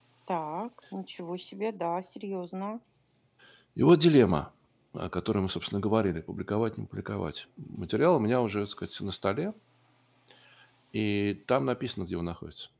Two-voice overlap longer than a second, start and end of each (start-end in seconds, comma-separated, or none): none